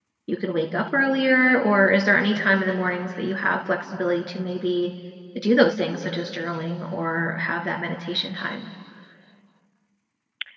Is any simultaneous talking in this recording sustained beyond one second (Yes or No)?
No